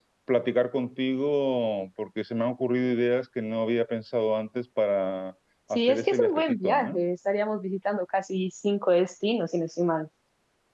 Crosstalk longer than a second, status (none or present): present